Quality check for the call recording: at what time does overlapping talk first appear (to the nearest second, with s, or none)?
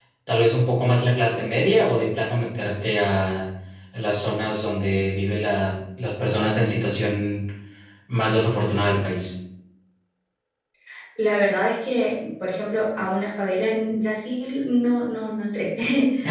none